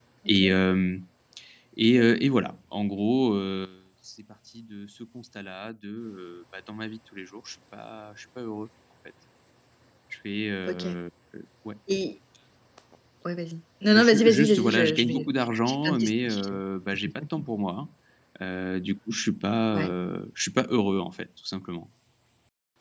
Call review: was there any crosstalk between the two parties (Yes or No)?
Yes